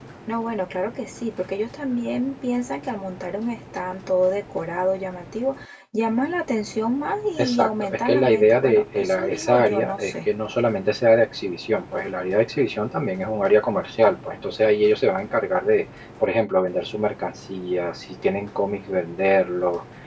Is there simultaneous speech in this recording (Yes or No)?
Yes